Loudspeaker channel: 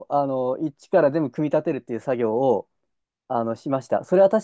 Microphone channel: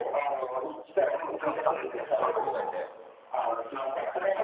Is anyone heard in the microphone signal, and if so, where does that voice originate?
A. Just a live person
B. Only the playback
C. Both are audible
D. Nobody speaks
C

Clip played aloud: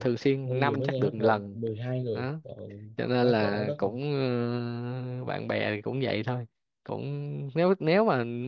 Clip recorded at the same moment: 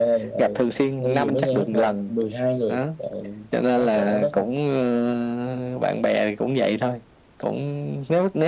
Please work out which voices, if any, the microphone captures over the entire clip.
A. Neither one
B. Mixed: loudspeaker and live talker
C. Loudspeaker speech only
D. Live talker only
C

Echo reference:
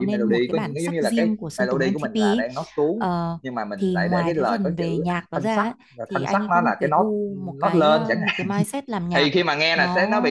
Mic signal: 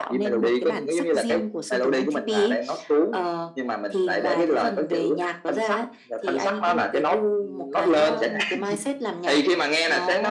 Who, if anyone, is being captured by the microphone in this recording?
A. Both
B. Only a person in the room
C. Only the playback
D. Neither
C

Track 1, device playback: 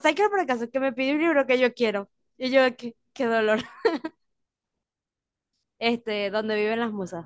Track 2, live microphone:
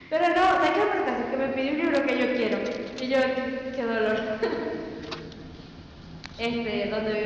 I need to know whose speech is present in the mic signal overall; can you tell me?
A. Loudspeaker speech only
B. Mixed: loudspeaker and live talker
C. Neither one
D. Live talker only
A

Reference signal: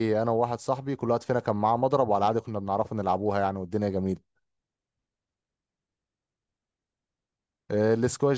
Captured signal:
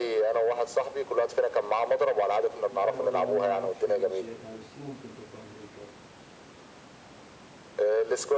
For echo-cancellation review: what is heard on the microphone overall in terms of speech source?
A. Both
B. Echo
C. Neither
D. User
A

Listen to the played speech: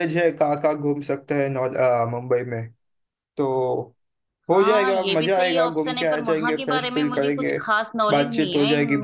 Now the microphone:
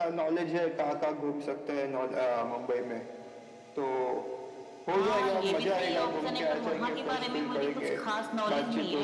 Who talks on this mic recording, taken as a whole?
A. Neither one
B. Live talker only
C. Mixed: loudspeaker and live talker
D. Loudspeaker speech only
D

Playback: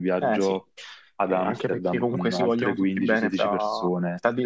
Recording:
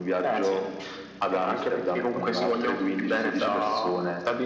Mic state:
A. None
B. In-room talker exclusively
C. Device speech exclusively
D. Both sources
C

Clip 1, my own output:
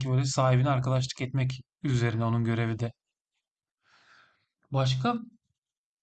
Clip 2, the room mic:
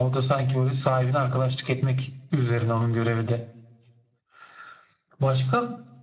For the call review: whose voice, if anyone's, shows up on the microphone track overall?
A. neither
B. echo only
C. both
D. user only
B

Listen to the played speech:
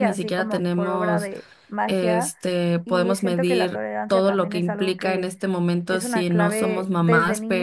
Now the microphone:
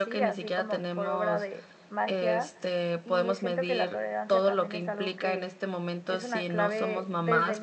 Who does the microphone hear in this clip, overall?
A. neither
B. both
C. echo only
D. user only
C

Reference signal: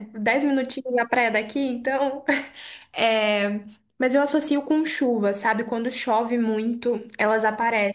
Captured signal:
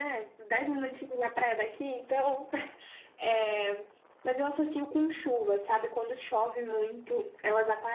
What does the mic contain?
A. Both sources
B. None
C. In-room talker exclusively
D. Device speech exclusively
D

